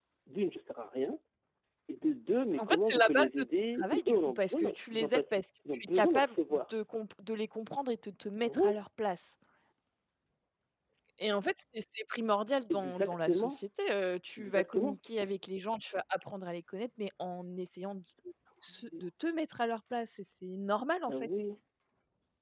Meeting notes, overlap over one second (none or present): present